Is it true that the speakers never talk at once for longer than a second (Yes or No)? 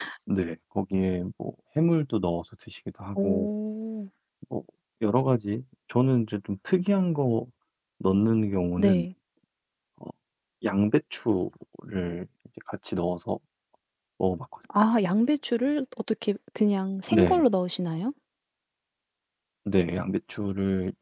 Yes